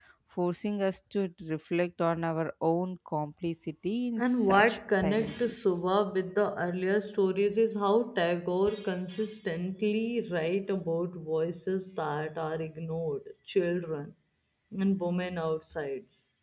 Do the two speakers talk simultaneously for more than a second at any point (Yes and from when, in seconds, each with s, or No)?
Yes, from 4.2 s